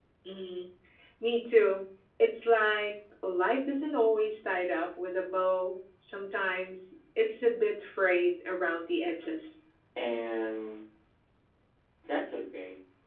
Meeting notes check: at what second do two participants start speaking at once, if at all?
none

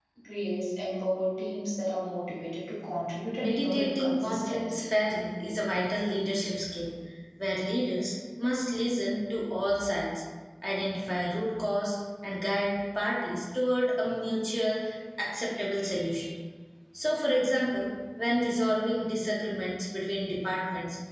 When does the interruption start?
3.4 s

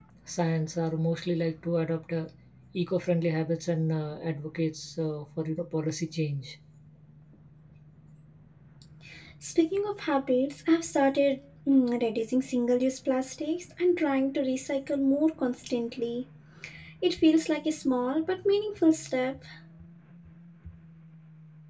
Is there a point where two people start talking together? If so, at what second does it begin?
none

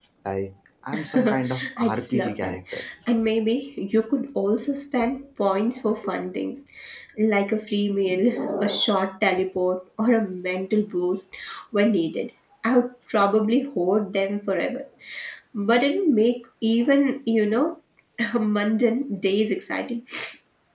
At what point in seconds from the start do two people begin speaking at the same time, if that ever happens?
0.9 s

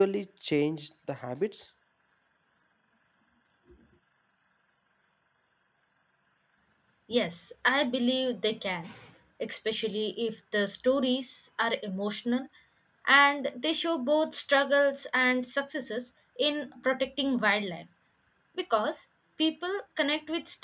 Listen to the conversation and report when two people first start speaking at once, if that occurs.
none

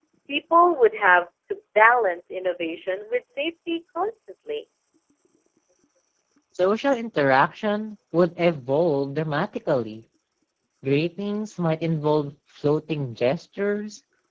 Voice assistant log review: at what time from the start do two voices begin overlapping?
none

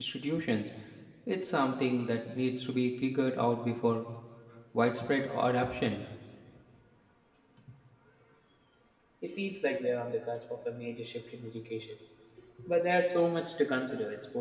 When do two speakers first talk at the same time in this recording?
none

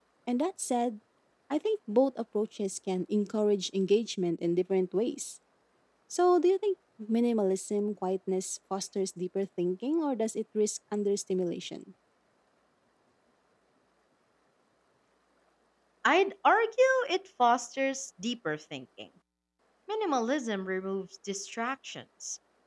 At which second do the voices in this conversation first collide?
none

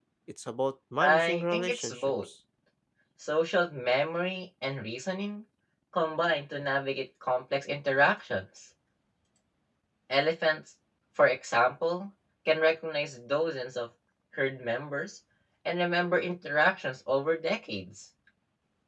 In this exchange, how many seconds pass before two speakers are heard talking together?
1.0 s

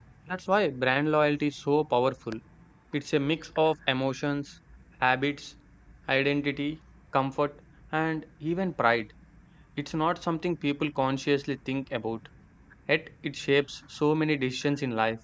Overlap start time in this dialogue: none

